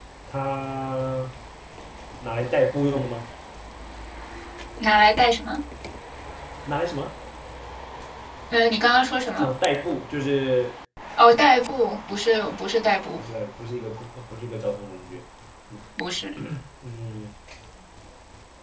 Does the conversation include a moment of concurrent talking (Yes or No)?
No